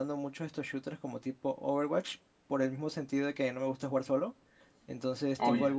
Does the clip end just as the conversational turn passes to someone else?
No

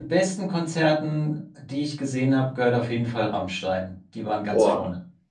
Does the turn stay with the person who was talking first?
No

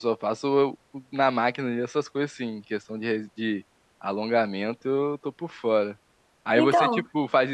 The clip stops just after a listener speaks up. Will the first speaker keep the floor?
Yes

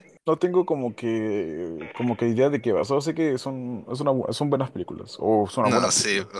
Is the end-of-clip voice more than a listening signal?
Yes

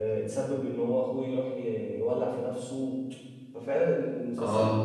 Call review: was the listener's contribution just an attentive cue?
Yes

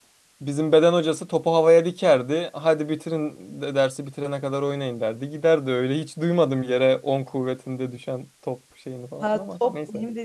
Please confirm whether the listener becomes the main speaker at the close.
Yes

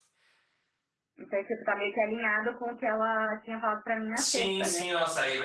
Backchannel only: No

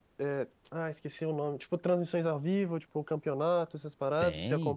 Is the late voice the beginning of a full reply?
Yes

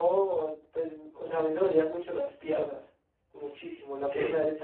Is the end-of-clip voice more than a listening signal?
No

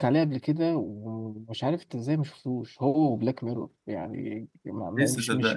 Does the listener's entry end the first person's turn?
No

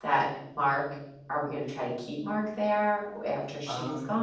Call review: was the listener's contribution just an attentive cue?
No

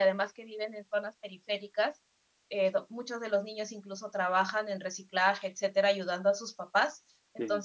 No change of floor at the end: Yes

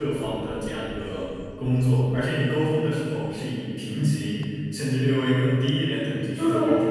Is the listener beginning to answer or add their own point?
Yes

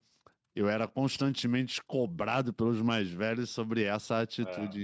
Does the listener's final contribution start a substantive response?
No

